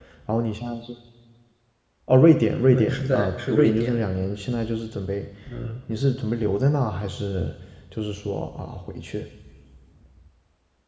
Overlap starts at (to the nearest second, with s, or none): 3 s